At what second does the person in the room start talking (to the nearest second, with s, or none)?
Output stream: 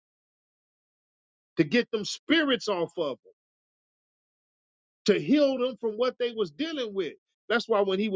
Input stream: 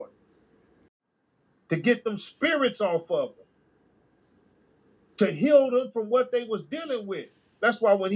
none